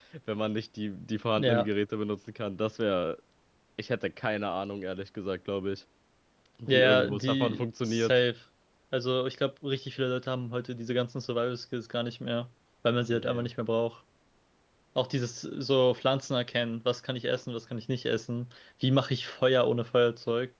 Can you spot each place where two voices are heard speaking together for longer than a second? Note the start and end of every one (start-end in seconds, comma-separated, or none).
6.7-8.1